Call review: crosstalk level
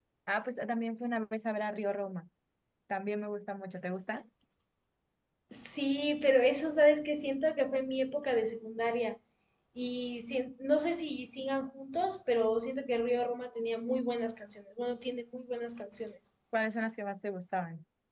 none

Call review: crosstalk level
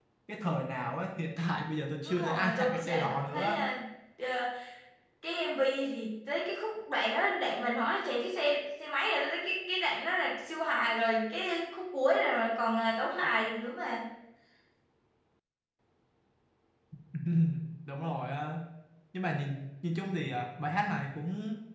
present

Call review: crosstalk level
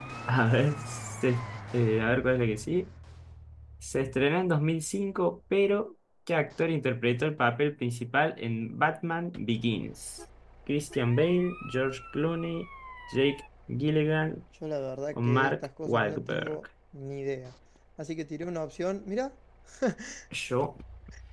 present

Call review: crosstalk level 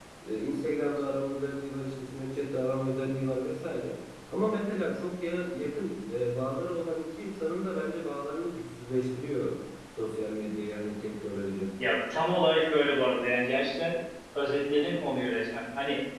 none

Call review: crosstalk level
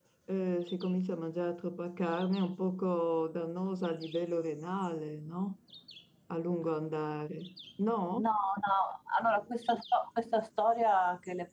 none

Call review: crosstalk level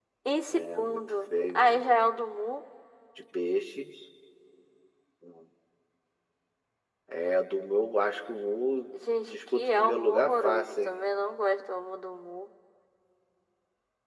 present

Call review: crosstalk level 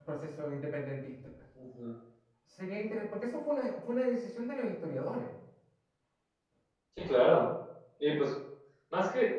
none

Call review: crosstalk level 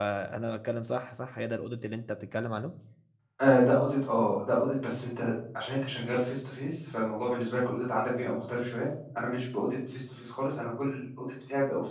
none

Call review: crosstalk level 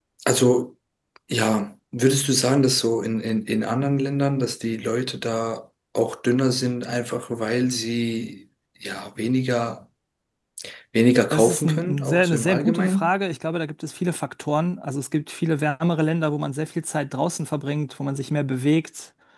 present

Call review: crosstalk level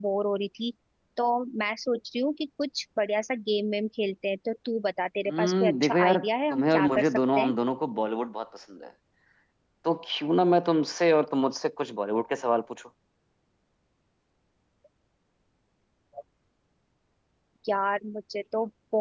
present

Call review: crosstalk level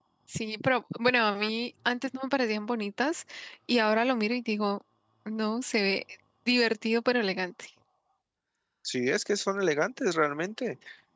none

